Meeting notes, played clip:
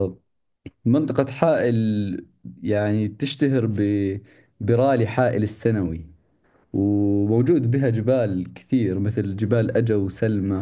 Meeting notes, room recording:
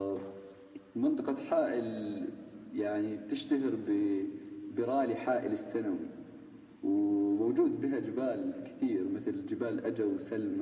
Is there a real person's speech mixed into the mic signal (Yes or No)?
No